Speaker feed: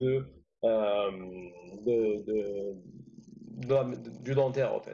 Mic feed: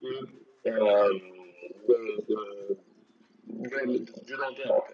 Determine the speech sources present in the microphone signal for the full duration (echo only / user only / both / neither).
echo only